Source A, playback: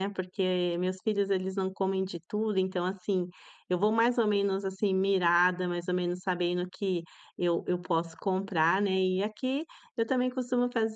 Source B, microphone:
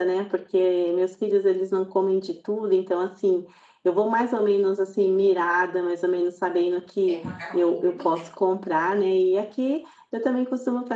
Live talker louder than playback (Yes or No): No